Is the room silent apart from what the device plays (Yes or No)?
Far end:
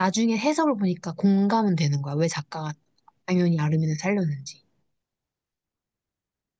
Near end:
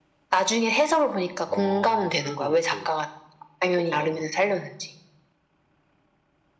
No